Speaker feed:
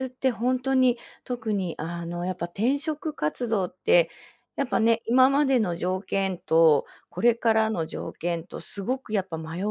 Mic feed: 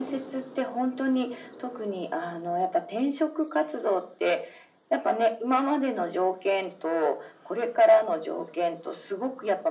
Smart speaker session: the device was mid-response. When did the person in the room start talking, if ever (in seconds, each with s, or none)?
none